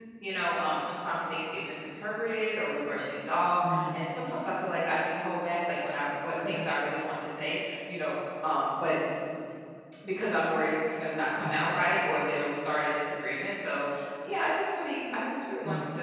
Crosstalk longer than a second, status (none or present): none